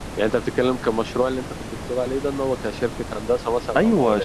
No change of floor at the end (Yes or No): No